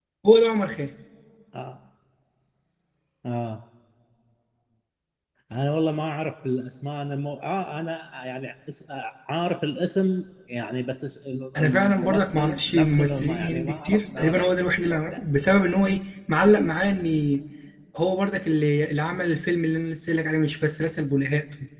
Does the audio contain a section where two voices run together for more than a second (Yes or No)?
Yes